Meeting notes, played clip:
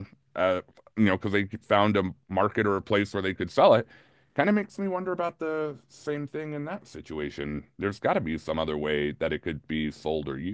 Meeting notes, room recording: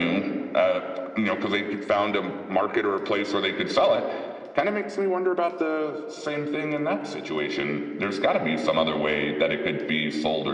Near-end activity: none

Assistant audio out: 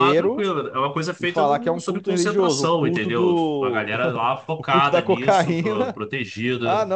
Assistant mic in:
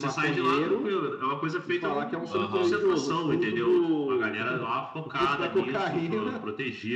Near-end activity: present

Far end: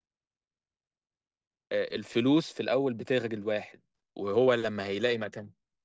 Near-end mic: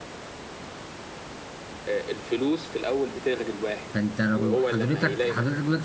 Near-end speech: present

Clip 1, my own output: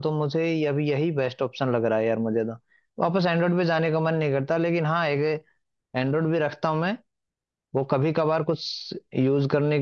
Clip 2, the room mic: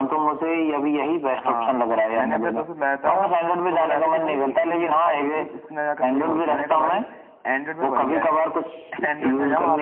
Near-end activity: present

